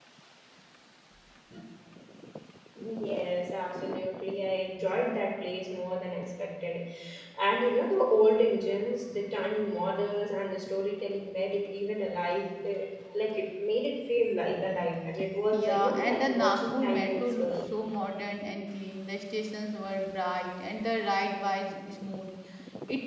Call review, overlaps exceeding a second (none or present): present